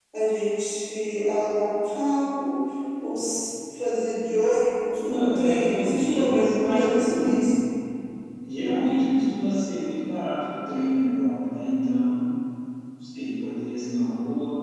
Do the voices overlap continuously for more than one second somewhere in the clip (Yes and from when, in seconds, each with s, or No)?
Yes, from 5.1 s